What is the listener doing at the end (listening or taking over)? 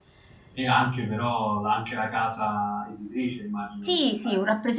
taking over